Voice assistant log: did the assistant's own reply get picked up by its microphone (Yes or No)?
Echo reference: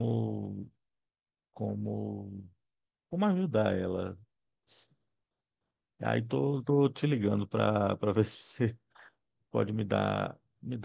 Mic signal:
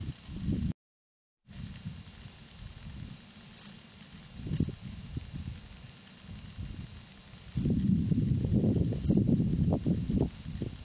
No